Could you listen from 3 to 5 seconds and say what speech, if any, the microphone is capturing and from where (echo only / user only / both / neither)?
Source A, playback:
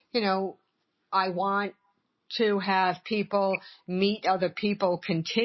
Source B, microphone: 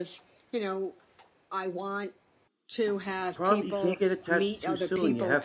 both